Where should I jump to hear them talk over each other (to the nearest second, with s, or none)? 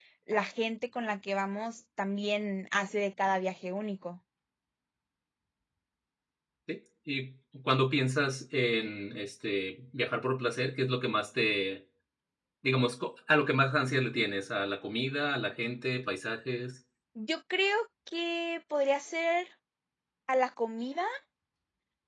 none